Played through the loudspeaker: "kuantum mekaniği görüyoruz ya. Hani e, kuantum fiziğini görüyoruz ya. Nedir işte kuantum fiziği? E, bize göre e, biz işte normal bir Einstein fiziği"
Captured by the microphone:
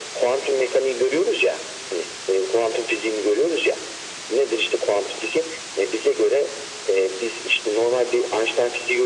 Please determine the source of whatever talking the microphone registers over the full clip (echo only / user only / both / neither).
echo only